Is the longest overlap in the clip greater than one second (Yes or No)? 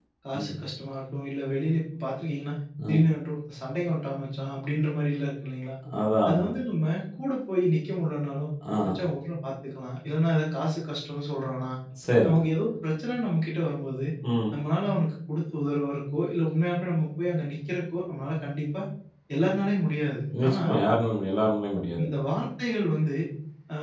No